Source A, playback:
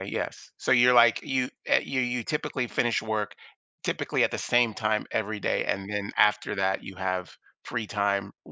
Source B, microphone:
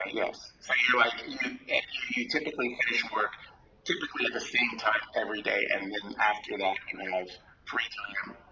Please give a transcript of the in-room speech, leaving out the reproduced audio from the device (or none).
none